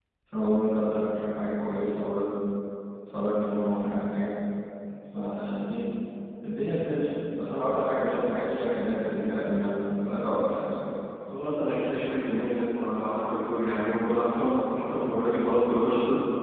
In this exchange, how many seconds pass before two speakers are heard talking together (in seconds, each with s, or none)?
none